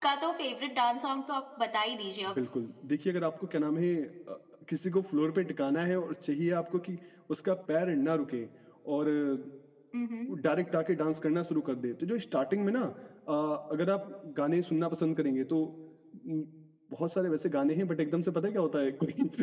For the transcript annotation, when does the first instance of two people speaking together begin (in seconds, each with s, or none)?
none